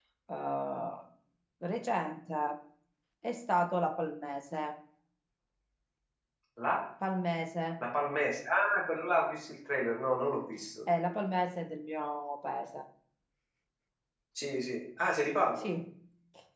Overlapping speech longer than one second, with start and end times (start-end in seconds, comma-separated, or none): none